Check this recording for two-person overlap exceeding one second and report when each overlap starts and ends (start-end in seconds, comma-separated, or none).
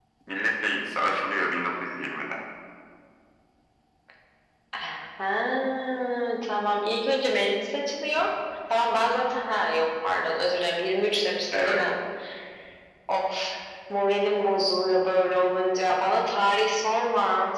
none